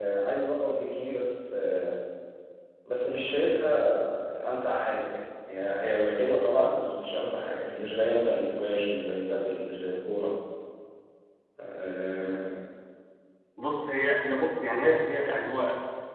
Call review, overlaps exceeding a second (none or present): none